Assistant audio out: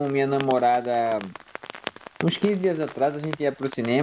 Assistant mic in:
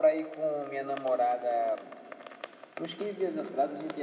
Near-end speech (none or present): none